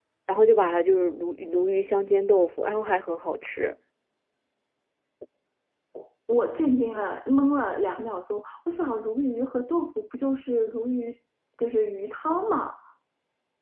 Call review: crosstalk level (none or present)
none